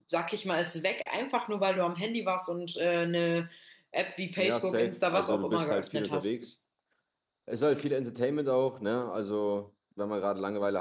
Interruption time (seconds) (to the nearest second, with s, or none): 4 s